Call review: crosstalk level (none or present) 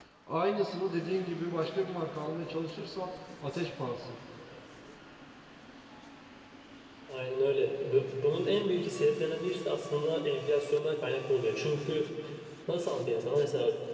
none